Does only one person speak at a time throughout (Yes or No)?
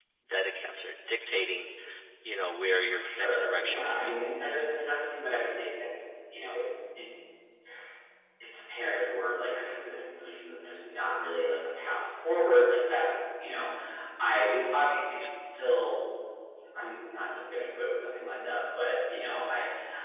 No